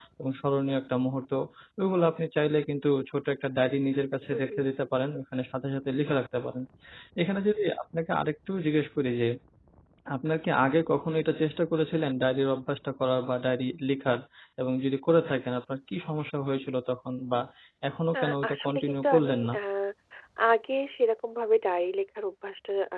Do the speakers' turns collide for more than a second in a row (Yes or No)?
Yes